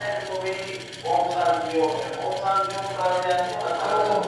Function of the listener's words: taking over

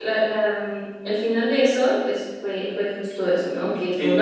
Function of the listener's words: listening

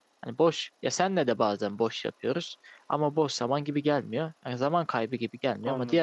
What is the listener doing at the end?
listening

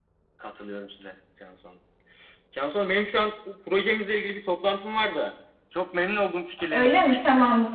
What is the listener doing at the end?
taking over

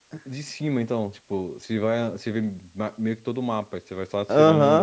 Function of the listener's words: taking over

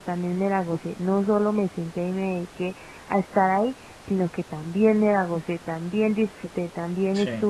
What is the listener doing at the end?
listening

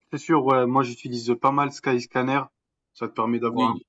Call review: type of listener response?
listening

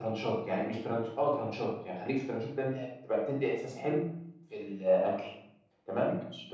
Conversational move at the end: listening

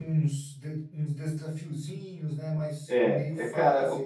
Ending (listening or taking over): taking over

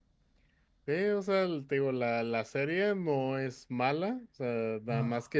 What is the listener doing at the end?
listening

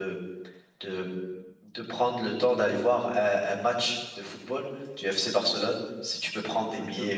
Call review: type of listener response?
taking over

